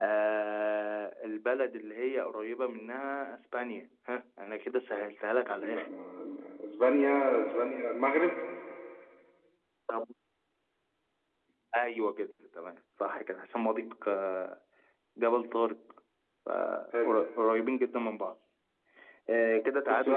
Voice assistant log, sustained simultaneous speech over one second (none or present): none